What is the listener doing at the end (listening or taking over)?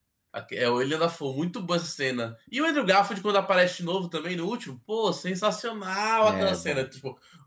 listening